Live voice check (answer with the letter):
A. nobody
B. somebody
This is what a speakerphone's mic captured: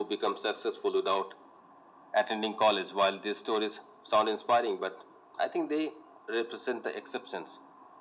A